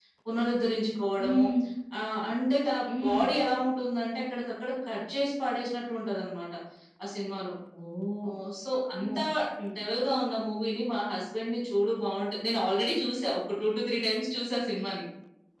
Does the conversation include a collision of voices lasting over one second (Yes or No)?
No